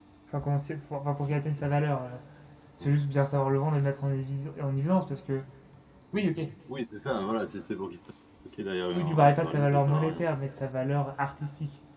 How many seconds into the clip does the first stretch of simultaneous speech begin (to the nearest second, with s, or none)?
9 s